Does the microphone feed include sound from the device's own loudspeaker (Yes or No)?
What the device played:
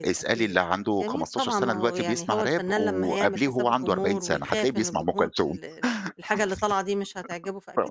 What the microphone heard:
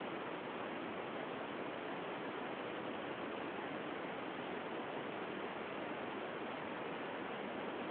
No